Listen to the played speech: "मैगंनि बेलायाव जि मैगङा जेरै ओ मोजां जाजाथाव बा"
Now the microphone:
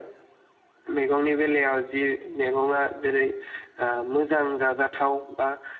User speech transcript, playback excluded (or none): none